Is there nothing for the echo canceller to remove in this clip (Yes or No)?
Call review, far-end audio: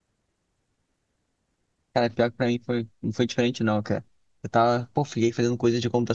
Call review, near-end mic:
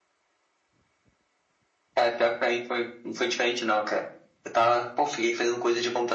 No